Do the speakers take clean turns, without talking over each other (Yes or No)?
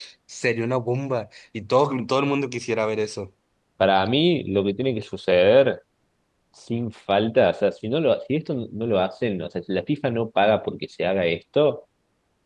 Yes